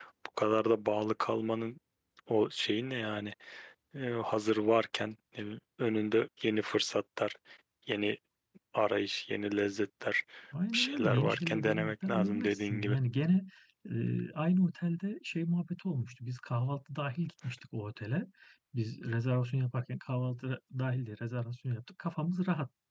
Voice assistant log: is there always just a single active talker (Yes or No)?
No